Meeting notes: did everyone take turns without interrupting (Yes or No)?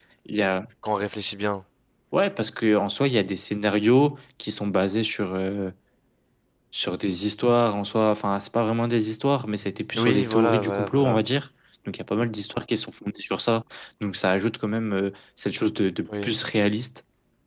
No